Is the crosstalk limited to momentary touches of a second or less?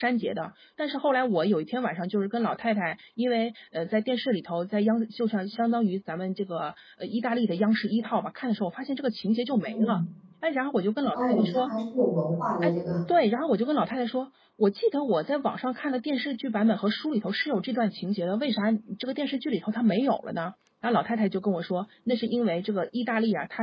Yes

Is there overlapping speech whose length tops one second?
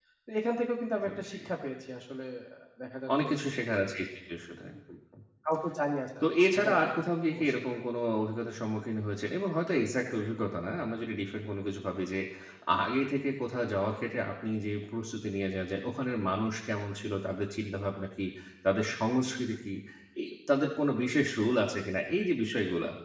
No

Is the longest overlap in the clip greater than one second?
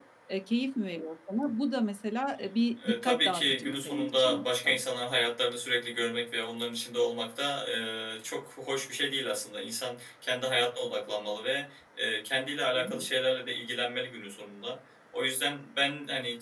Yes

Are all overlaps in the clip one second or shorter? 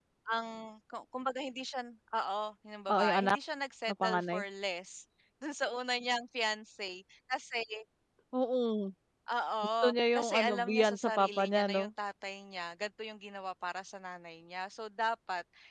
No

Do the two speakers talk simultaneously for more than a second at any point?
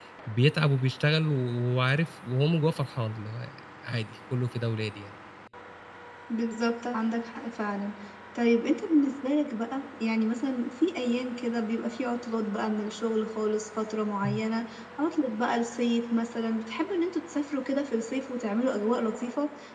No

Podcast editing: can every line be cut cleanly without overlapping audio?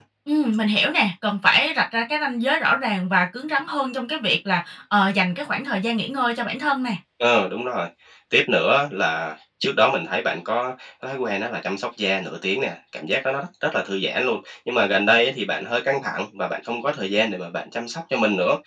Yes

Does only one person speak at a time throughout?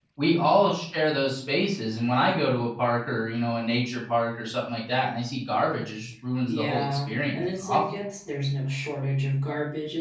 No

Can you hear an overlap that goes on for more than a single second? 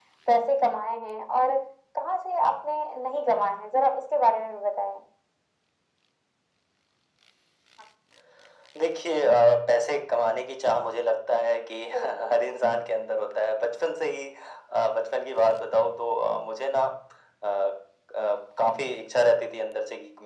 No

